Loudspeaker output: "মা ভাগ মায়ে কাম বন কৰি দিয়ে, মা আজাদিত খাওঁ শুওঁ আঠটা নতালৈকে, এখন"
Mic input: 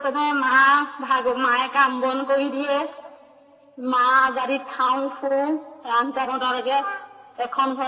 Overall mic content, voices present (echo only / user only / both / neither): echo only